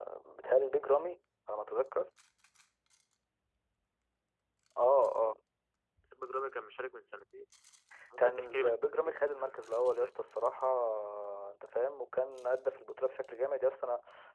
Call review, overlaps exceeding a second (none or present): present